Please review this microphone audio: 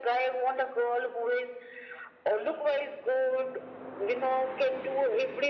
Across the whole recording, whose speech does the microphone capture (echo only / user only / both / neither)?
echo only